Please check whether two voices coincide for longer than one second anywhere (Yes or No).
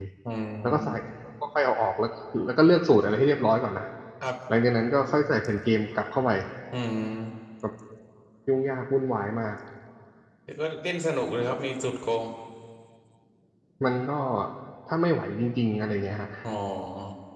No